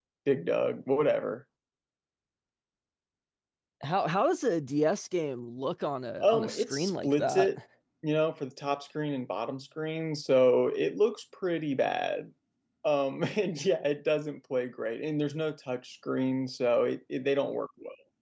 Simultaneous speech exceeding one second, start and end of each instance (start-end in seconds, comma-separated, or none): 6.2-7.5